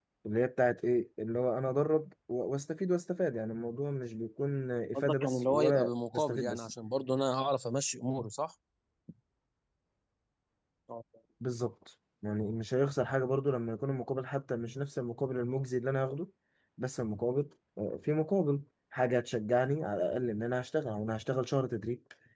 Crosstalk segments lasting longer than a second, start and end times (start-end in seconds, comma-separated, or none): 4.9-6.7